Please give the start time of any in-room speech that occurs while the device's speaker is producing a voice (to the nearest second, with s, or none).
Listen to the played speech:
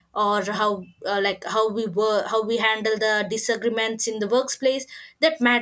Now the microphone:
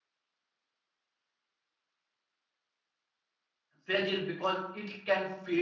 4 s